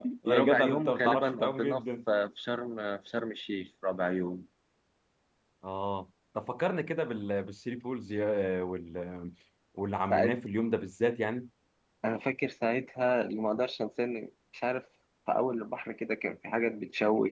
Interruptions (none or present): present